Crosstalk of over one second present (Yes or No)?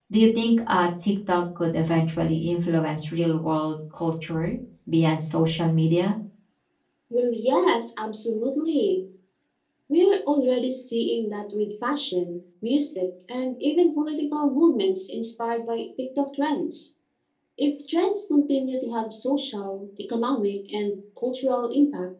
No